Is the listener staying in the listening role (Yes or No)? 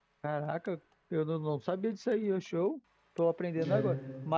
Yes